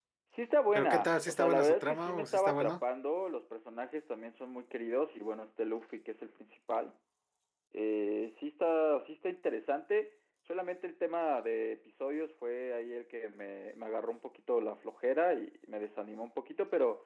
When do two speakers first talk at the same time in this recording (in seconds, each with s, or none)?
0.8 s